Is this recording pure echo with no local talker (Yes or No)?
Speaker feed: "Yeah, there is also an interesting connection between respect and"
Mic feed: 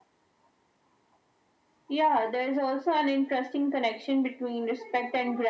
Yes